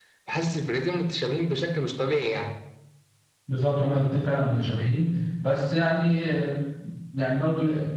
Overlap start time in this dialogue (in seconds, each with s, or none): none